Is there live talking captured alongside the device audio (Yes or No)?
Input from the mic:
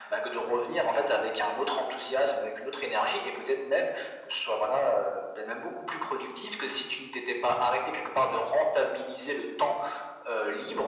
No